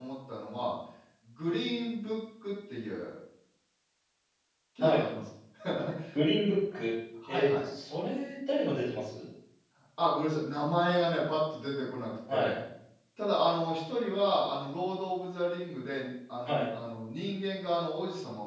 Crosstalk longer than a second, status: none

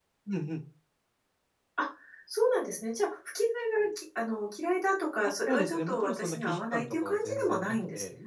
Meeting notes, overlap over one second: present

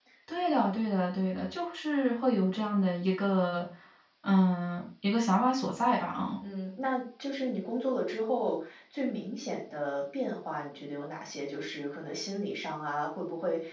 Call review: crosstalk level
none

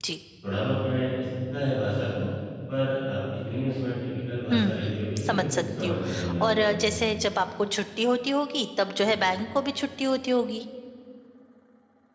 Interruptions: present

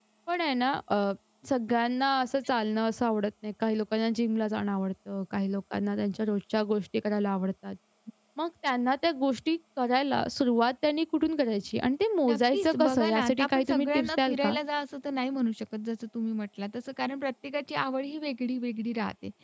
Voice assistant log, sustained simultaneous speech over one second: present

